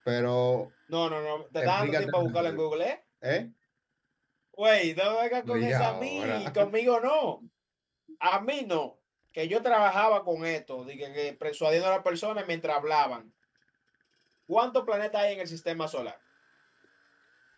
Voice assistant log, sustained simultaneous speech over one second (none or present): present